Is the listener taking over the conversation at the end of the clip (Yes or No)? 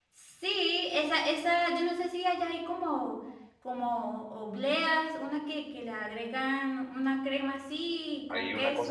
Yes